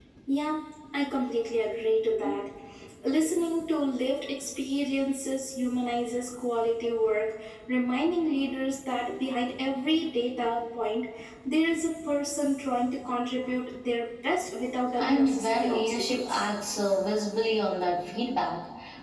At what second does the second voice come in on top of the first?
15 s

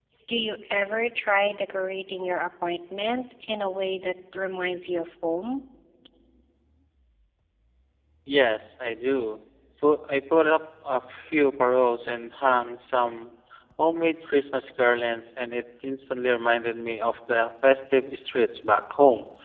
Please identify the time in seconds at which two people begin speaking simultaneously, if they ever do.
none

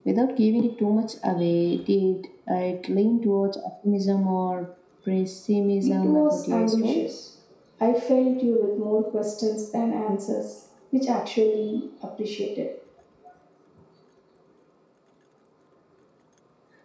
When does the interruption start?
6 s

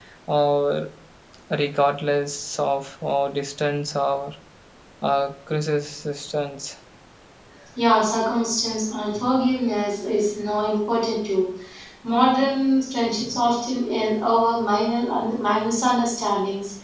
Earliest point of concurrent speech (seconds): none

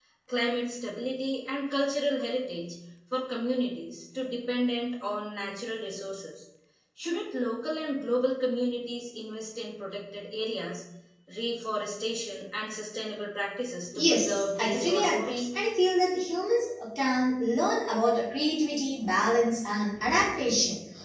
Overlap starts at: 14 s

